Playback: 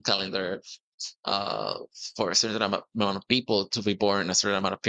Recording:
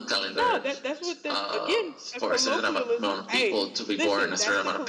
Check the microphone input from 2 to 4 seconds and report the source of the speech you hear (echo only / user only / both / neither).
both